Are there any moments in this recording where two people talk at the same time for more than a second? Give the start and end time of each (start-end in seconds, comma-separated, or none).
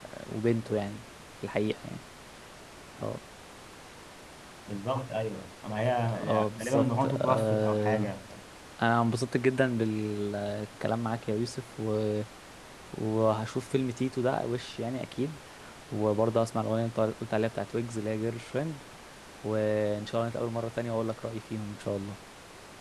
6.1-8.1